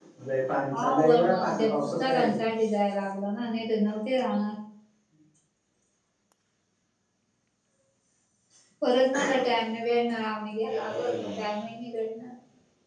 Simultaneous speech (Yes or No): Yes